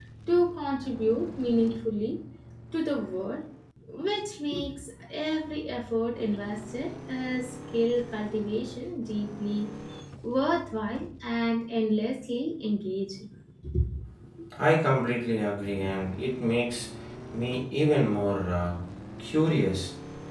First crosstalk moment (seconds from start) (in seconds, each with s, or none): none